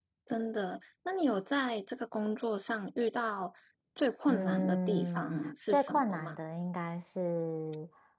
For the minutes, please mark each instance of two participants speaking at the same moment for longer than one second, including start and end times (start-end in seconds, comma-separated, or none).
4.3-6.3